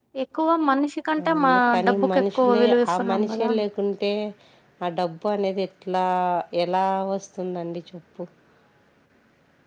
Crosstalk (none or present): present